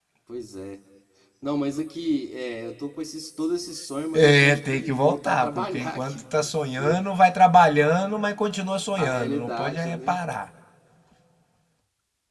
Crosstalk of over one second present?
Yes, from 4.1 s

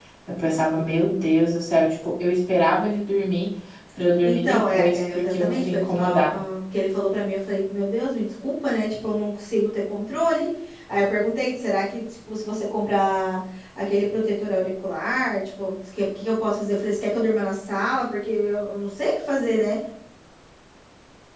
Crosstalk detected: Yes, from 4.2 s

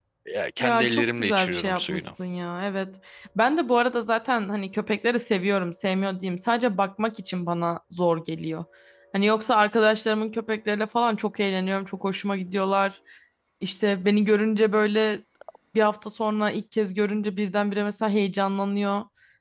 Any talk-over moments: Yes, from 0.6 s

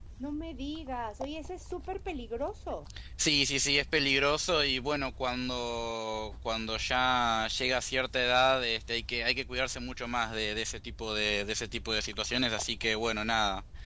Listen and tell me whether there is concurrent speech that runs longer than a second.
No

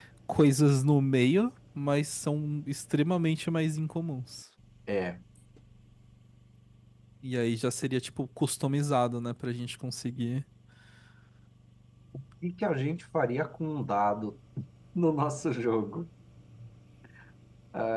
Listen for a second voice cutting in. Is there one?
No

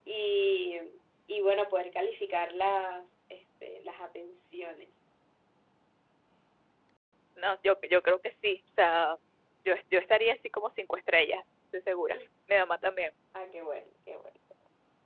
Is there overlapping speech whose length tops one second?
No

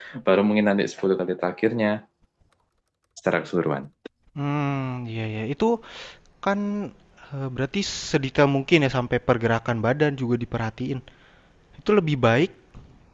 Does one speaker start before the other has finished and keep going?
No

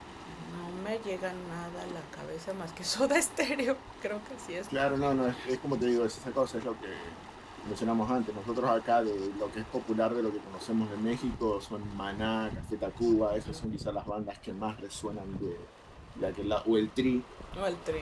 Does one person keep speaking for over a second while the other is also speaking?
No

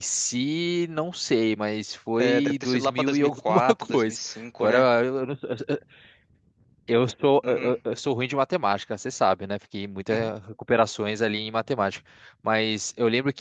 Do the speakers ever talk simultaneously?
Yes, from 2.2 s

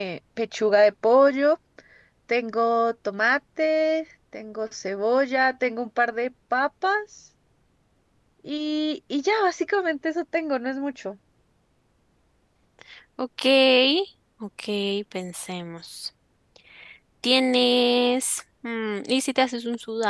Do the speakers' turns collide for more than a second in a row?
No

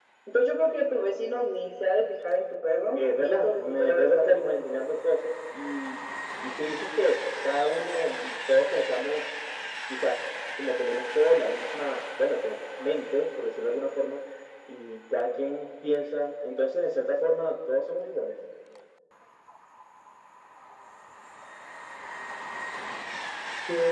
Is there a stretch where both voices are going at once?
Yes, from 2.9 s

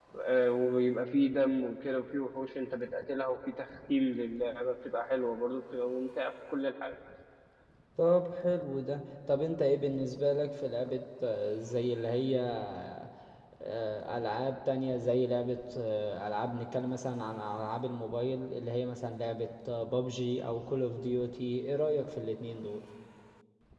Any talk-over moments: No

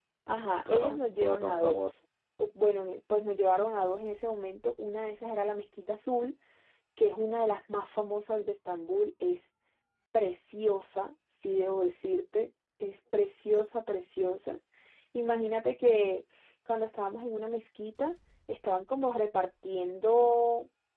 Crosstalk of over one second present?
Yes, from 0.6 s

